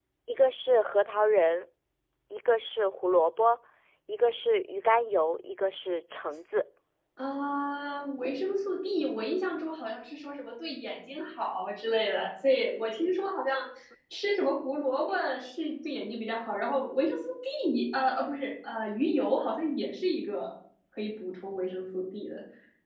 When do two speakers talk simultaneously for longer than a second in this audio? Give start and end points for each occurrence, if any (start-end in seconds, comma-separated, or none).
none